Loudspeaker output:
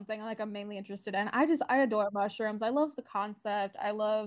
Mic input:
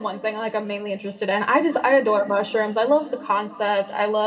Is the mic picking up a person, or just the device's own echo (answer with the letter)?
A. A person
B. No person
B